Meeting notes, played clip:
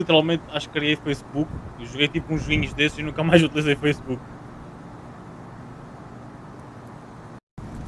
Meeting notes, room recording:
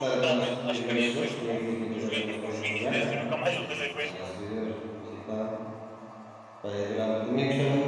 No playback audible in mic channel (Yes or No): No